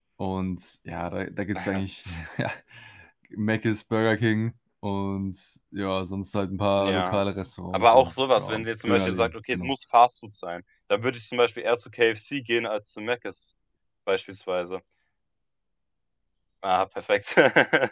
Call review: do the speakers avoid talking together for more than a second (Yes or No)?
No